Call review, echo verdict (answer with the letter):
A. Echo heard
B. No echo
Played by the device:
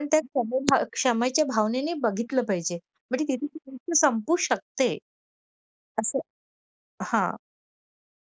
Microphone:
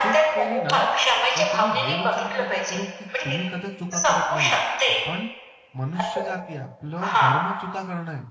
A